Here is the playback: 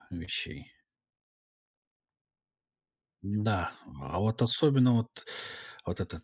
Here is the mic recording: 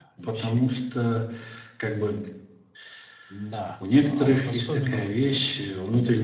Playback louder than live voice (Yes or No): No